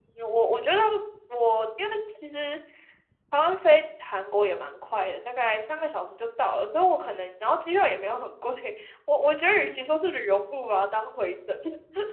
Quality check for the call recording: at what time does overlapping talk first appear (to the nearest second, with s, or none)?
none